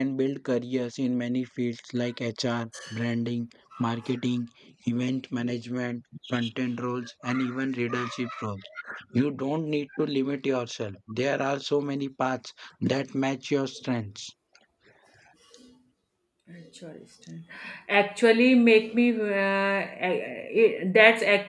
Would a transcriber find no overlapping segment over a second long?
Yes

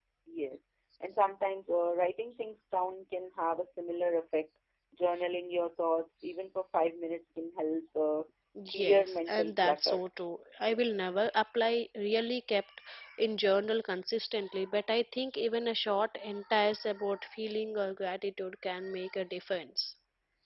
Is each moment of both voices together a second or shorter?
No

